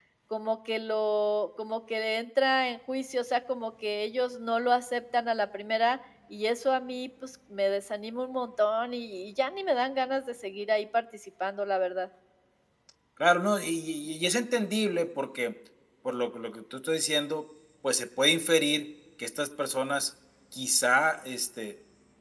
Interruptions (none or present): none